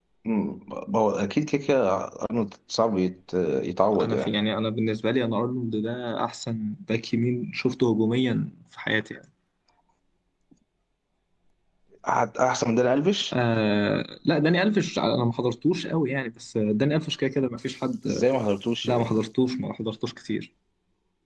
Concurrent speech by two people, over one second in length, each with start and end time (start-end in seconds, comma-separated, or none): none